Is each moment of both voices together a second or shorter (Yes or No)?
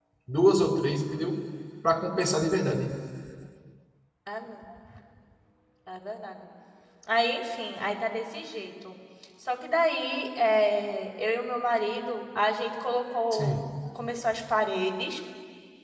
Yes